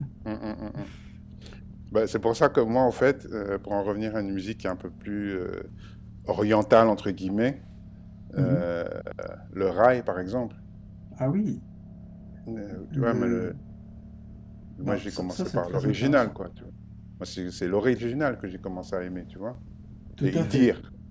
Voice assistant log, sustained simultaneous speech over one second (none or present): present